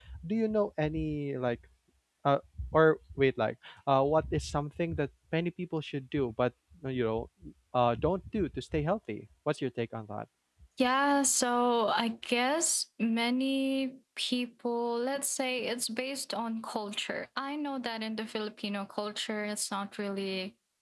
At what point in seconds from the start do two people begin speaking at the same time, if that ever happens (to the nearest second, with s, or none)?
none